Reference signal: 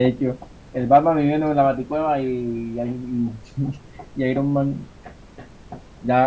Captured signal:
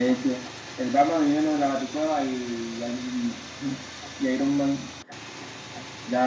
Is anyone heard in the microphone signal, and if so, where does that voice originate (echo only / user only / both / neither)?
echo only